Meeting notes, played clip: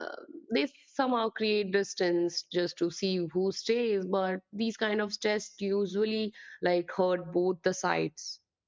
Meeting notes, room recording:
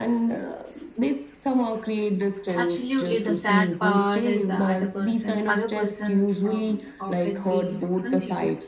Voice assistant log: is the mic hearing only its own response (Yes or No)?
No